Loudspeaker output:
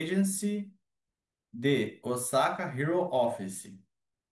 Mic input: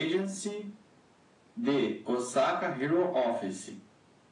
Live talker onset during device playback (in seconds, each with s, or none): none